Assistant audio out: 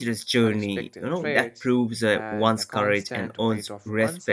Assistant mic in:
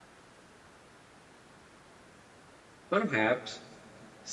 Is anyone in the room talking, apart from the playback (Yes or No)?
Yes